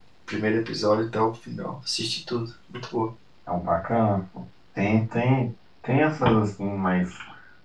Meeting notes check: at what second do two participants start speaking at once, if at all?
none

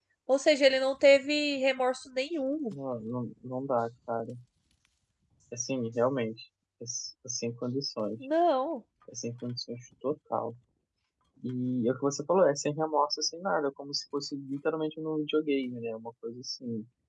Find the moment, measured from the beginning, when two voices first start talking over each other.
none

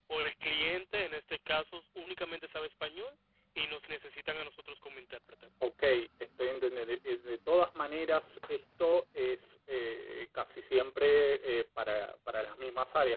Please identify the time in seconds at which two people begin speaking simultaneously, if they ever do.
none

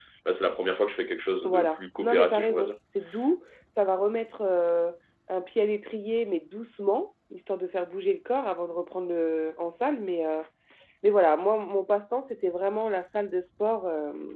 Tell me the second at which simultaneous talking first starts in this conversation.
1 s

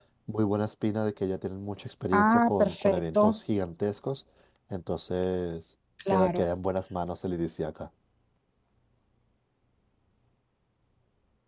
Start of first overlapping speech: 2 s

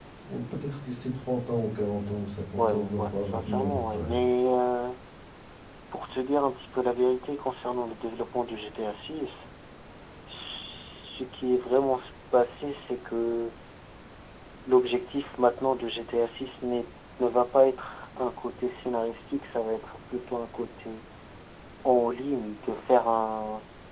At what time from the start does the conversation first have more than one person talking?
3 s

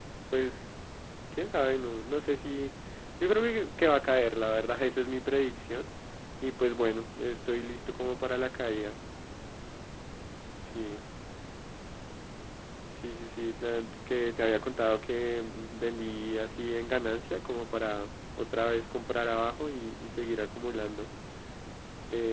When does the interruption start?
none

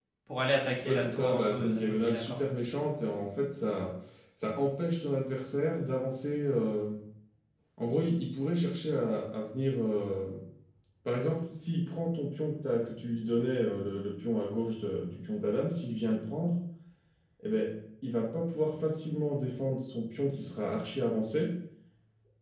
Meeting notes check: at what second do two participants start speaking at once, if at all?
1 s

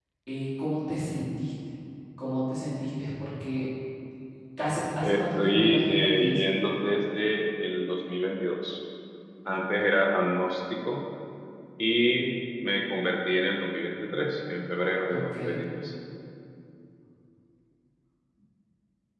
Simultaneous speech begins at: 5 s

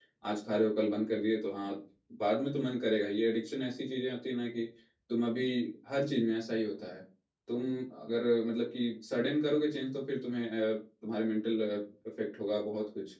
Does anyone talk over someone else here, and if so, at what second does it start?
none

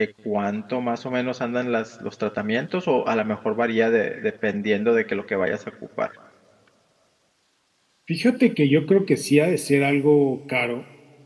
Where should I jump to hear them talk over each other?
none

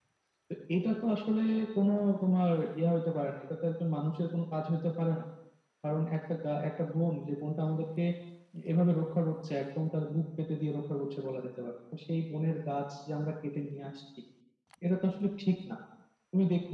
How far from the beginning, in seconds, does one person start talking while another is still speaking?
none

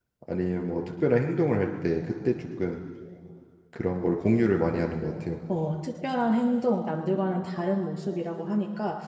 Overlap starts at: none

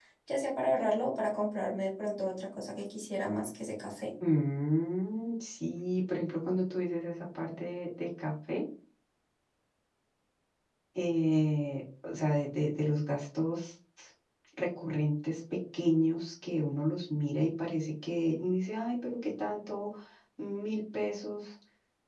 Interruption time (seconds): none

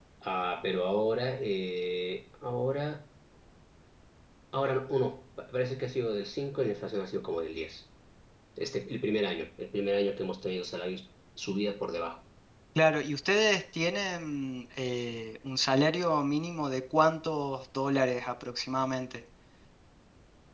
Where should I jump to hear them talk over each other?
none

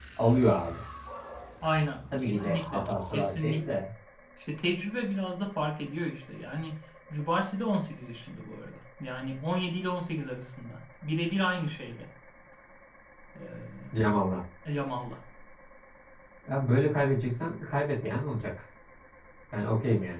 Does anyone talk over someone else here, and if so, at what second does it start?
2 s

